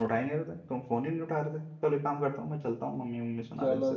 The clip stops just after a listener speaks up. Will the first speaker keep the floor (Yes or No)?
No